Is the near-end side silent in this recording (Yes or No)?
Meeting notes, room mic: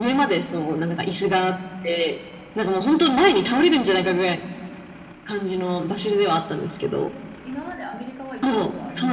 No